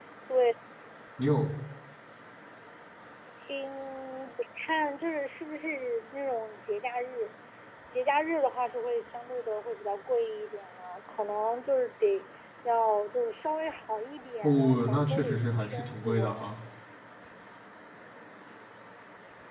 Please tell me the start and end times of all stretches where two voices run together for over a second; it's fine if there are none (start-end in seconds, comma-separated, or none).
14.4-16.5